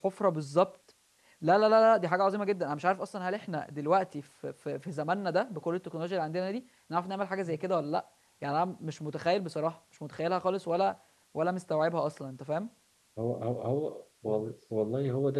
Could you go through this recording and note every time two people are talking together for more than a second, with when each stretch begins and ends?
none

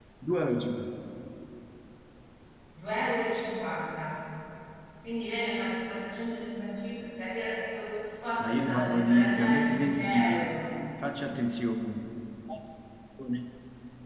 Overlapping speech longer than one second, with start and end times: 8.4-10.5

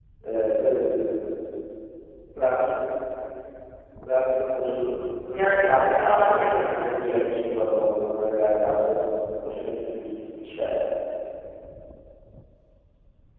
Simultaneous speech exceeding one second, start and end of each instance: 5.3-7.3

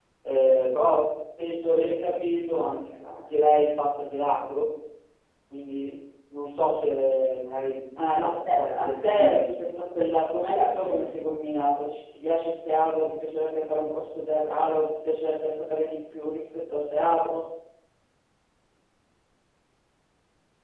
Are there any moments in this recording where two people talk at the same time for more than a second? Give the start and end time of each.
8.2-9.5

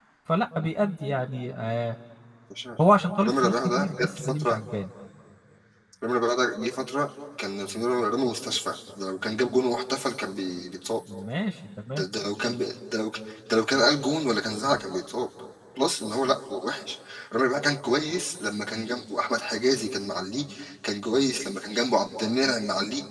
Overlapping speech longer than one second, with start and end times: 3.2-4.6

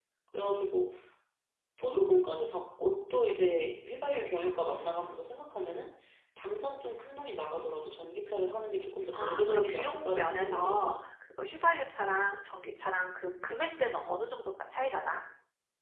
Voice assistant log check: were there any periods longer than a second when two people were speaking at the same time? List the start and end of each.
9.1-11.0

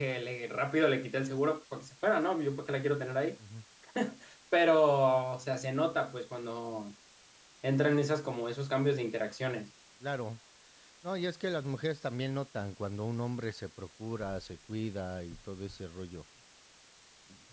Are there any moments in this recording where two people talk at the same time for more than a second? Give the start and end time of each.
none

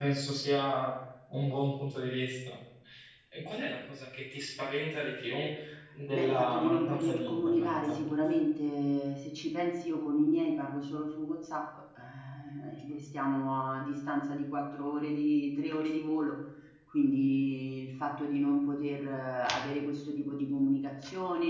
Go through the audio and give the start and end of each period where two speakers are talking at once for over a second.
6.1-8.0

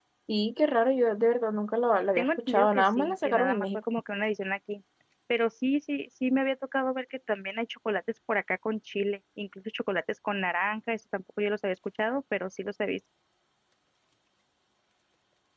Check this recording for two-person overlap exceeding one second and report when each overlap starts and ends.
2.2-3.6

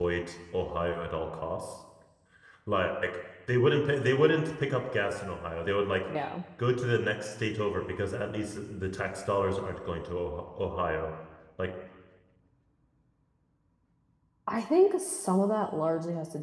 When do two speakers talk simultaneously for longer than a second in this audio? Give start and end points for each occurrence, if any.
none

